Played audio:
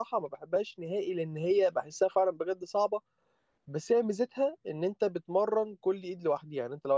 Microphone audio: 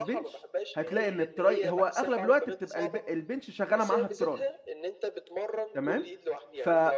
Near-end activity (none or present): present